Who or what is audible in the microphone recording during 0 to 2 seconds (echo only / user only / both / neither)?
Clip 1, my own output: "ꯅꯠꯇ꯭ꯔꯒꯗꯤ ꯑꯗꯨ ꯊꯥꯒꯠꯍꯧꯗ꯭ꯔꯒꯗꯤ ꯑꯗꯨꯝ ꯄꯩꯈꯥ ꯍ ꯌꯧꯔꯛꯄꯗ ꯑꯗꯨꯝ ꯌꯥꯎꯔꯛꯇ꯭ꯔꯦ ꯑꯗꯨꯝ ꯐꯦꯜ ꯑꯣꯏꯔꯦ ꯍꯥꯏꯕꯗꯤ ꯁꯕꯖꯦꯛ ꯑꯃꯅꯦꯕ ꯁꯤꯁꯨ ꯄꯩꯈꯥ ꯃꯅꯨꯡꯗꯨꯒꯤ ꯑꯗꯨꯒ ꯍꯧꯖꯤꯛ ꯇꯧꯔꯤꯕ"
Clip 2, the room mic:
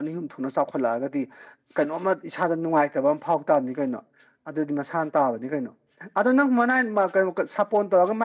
user only